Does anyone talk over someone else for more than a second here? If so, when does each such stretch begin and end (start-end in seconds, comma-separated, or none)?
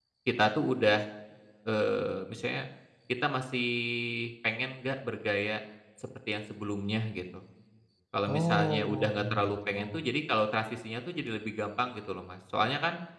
8.3-10.0